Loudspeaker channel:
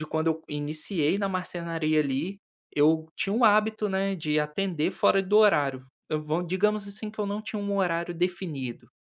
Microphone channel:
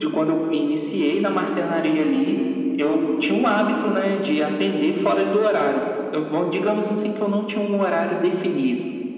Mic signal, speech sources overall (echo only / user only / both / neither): echo only